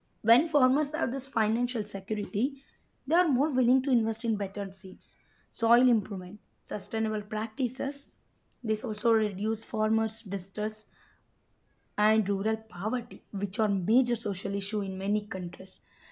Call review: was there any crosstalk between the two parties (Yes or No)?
No